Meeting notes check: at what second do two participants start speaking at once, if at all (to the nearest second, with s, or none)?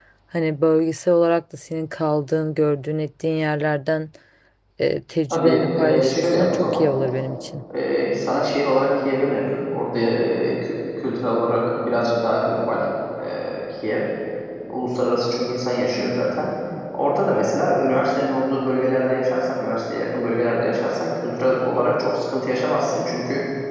5 s